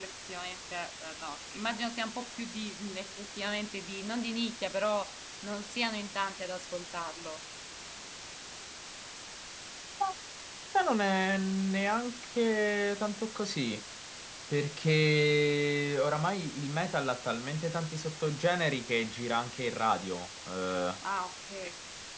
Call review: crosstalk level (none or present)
none